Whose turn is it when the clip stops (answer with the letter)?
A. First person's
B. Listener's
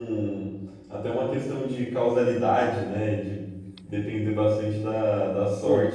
A